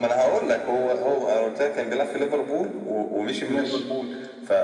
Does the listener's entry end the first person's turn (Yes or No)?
No